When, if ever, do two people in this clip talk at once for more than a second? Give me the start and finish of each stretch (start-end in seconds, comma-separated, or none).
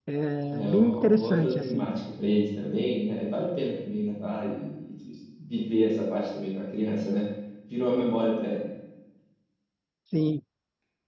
0.5-1.9